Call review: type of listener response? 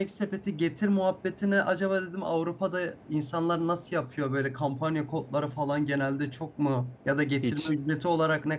listening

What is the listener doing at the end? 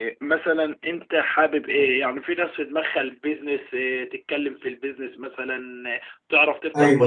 listening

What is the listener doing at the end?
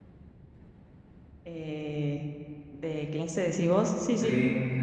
taking over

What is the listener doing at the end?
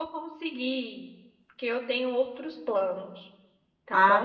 taking over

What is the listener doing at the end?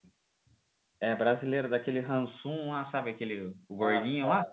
taking over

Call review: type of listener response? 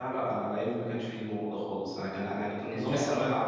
listening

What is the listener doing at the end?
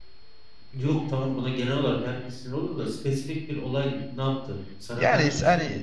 taking over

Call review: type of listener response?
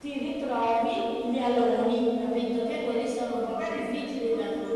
taking over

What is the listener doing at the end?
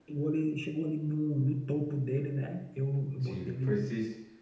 taking over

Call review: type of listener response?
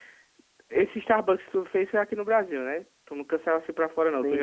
taking over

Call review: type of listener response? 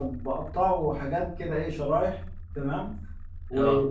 listening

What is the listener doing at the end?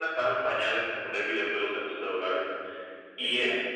listening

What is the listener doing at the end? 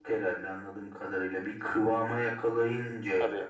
taking over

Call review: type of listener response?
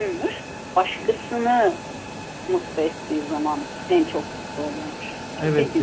taking over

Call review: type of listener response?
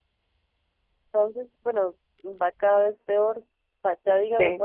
listening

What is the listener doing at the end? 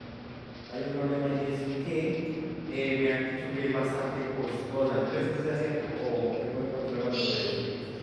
taking over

